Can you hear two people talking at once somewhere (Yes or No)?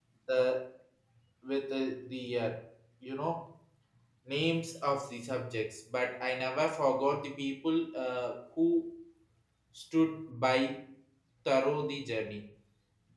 No